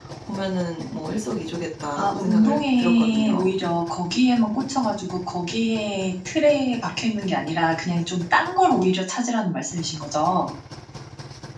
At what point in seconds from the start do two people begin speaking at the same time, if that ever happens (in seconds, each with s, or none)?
2.0 s